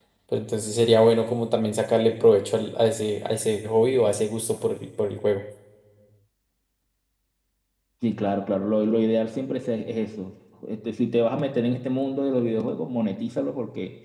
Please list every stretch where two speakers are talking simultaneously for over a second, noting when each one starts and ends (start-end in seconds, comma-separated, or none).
none